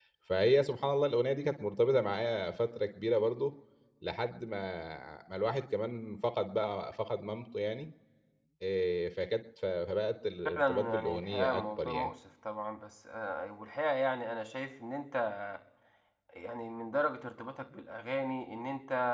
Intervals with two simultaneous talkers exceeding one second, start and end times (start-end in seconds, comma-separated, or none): 10.6-12.1